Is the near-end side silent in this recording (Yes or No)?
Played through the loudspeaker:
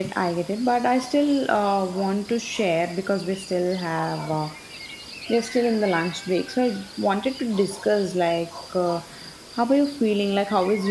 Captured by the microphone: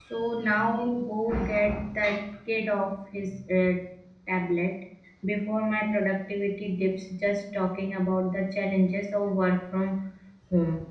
No